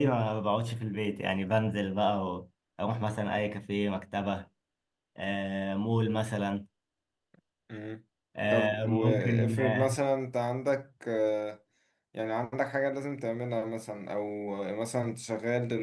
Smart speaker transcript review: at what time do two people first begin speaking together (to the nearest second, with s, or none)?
9 s